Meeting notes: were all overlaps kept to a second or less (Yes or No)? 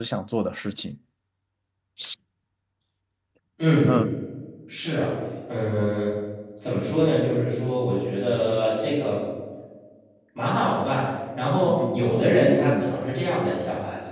No